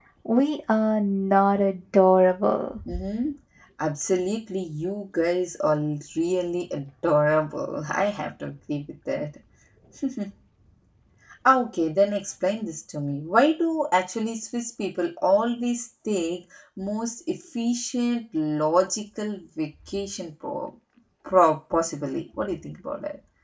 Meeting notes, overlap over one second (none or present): none